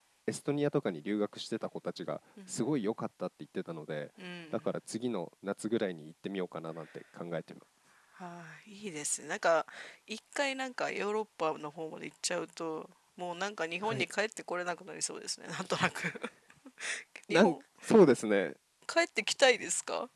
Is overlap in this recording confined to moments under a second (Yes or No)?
Yes